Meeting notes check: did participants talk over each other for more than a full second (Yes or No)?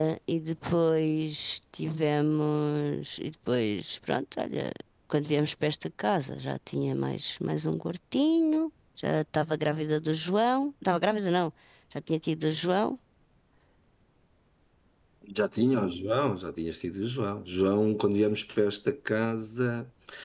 No